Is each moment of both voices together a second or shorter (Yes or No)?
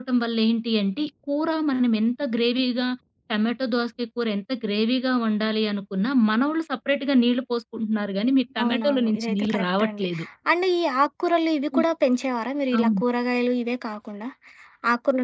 No